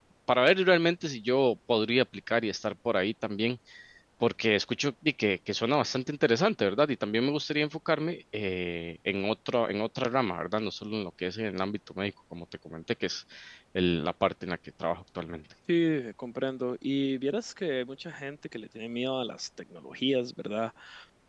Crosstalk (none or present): none